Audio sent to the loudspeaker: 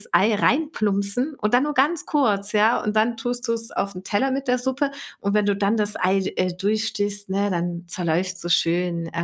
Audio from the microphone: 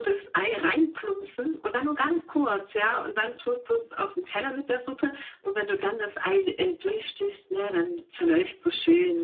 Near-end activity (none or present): none